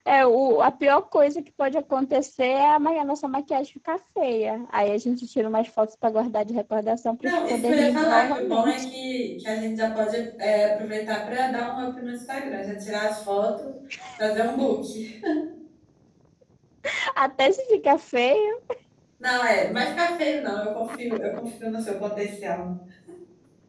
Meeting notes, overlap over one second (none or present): present